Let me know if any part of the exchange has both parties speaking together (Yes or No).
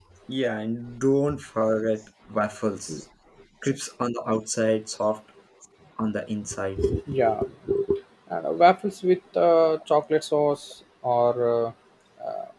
No